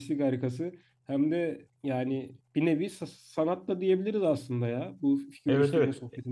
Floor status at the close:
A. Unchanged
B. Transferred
B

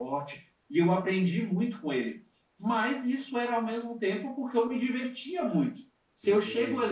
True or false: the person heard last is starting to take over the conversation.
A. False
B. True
A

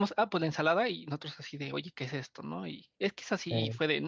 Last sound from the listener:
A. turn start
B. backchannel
B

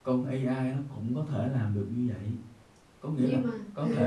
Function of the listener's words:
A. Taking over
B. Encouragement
B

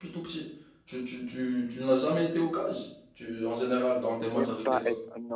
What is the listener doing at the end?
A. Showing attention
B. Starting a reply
B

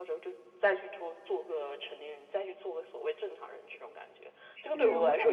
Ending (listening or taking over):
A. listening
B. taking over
B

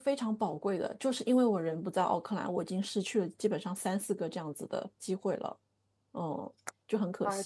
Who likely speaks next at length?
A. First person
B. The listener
B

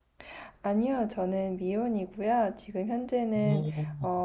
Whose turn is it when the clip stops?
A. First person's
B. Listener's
A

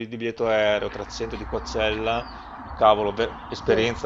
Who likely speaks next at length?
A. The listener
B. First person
B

